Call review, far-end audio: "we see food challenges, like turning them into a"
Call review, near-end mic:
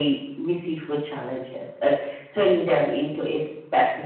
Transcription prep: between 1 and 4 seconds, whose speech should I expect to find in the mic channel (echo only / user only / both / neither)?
echo only